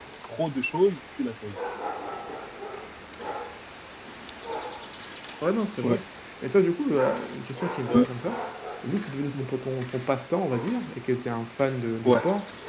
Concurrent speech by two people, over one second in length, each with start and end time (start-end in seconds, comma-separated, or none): none